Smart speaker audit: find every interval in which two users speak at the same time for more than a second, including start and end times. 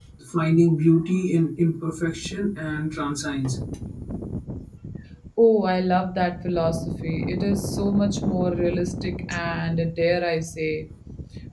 none

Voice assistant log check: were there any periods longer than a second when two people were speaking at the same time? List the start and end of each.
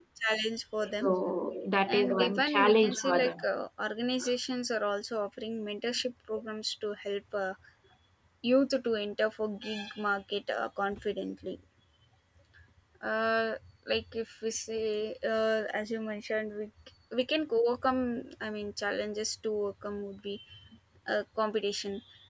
2.0-3.3

